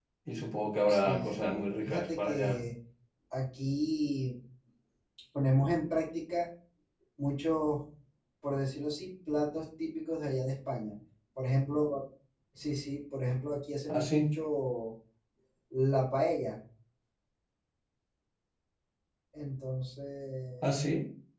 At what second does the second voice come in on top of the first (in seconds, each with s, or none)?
0.9 s